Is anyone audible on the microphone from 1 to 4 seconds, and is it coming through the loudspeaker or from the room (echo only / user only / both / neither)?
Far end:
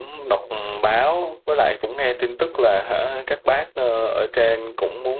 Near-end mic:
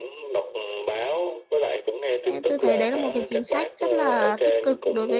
both